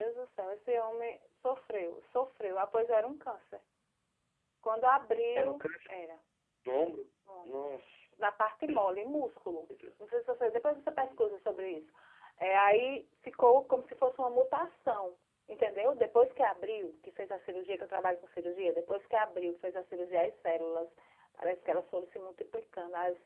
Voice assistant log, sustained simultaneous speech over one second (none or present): none